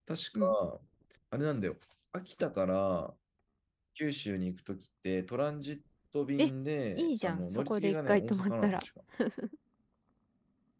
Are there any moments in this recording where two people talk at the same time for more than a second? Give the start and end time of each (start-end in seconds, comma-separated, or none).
7.0-8.8